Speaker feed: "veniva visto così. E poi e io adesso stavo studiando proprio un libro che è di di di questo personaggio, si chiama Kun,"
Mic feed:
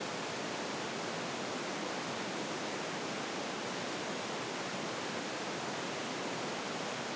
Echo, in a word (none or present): none